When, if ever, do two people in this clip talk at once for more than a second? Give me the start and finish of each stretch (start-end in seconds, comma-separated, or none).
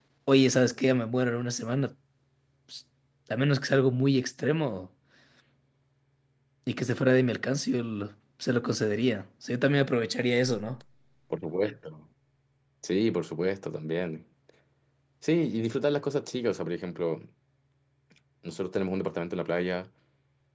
none